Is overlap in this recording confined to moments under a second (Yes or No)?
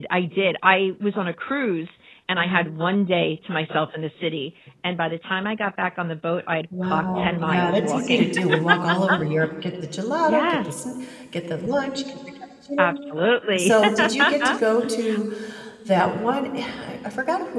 No